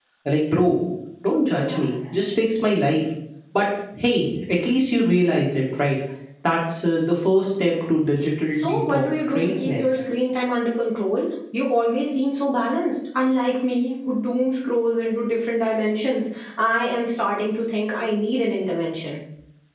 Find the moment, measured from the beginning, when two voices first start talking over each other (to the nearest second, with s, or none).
8 s